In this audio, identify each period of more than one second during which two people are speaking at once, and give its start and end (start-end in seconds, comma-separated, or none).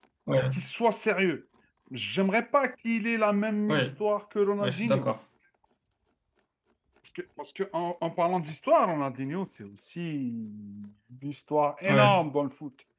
none